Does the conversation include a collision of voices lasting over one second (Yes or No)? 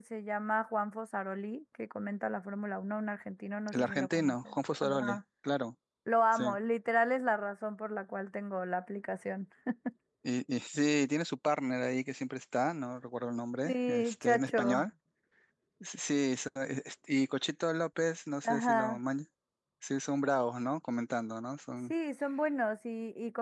Yes